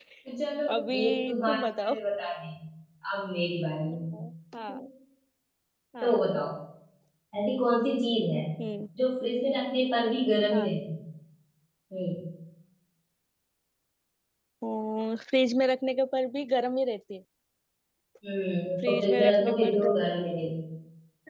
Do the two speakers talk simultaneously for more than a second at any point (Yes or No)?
Yes